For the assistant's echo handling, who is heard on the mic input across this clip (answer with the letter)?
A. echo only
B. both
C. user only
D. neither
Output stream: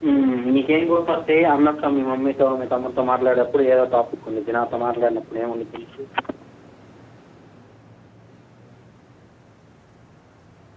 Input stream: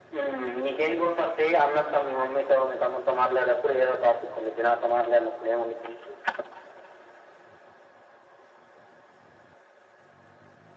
A